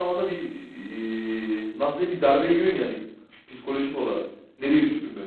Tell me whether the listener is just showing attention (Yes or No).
No